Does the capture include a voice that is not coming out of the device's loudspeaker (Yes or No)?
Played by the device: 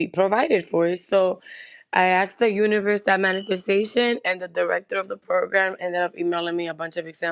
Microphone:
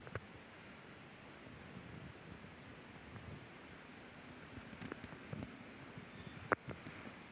No